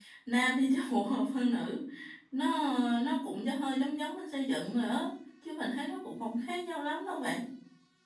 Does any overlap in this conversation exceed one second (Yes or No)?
No